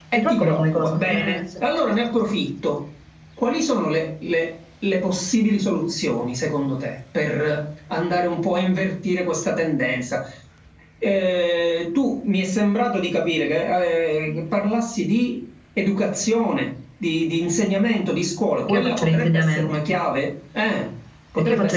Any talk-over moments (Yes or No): Yes